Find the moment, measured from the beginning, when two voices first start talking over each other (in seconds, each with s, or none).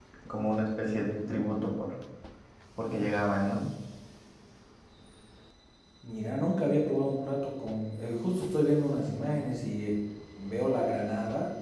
none